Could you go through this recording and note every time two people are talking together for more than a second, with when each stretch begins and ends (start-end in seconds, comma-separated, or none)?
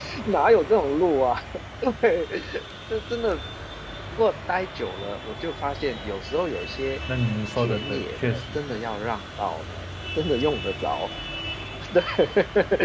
7.6-9.0